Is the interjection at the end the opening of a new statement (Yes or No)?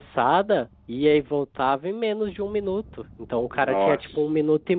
No